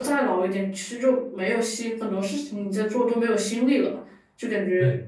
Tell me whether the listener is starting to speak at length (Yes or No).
No